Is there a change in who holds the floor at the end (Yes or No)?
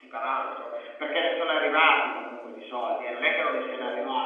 No